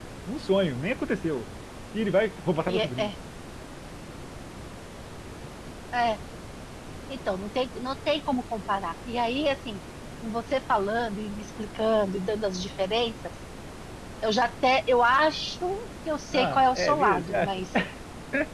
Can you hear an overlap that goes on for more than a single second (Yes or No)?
Yes